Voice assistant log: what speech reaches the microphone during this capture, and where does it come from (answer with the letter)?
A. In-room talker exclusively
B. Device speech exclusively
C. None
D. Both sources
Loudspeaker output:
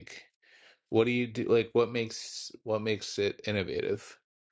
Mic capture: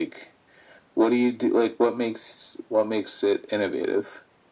B